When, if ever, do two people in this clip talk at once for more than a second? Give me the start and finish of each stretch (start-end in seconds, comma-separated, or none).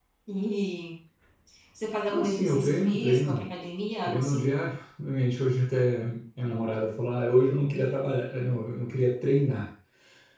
2.1-3.4